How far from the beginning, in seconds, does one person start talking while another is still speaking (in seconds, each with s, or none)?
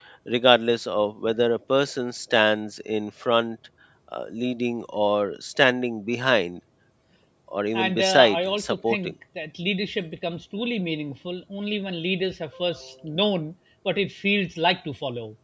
7.7 s